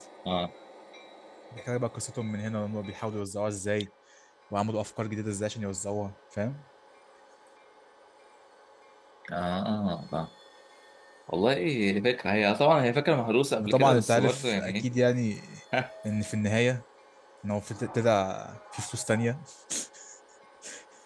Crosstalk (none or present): present